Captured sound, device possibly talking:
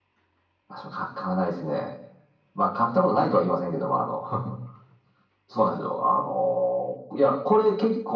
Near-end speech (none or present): none